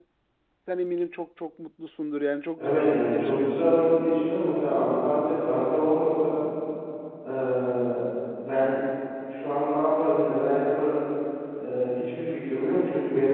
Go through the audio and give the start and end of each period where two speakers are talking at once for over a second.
2.6-3.8

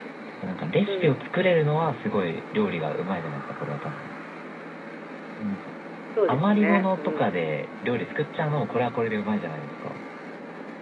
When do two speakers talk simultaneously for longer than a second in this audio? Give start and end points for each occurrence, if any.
6.3-7.6

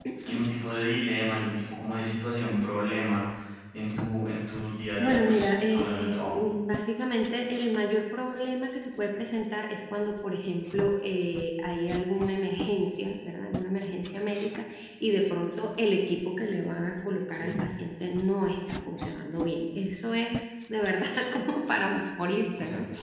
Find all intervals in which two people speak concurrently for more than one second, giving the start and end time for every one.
5.0-6.4

